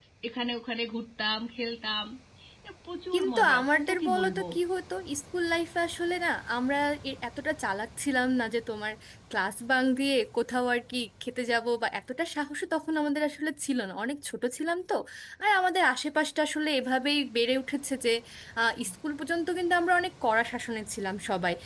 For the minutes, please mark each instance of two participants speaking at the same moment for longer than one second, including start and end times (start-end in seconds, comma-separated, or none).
3.1-4.4